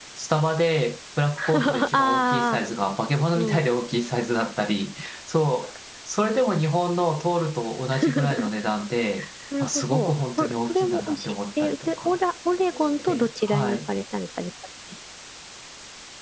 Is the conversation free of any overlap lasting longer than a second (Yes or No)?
No